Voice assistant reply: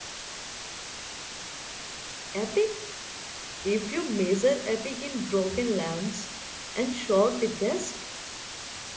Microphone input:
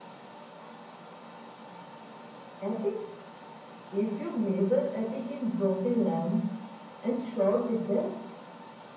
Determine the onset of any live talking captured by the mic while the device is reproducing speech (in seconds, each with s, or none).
none